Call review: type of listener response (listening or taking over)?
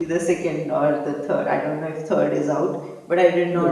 listening